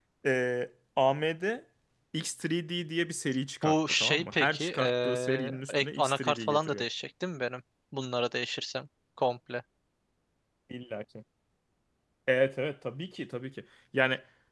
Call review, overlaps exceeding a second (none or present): present